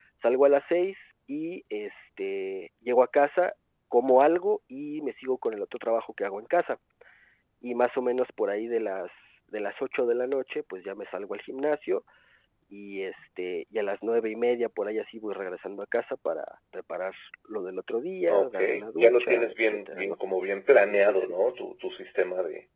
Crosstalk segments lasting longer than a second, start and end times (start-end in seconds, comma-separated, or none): 18.3-20.2